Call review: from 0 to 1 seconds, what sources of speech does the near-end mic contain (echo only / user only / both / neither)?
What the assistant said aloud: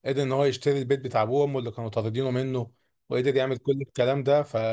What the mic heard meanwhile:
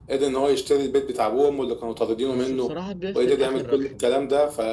echo only